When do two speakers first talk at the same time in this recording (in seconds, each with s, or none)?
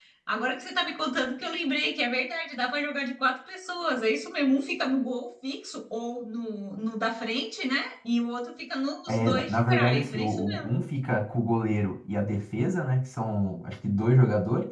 9.1 s